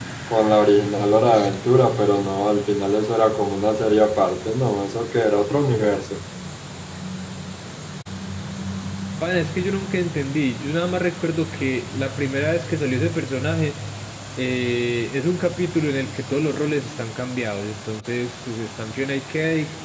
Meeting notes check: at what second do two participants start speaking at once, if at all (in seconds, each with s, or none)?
none